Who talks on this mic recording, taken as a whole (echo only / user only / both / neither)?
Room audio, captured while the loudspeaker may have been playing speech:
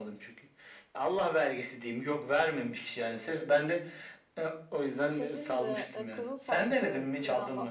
both